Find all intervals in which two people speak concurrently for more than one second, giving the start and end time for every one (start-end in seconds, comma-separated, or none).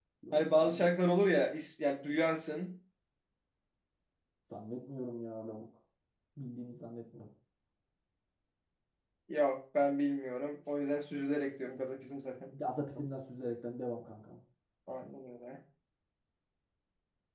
none